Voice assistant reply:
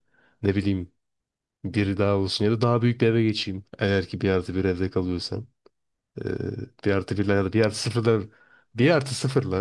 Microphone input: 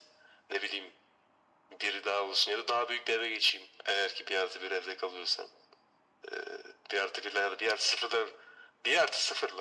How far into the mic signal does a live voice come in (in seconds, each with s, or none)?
none